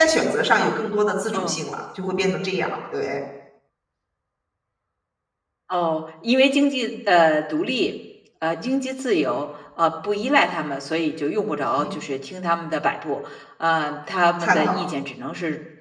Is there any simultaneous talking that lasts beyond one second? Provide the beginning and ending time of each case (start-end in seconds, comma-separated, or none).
none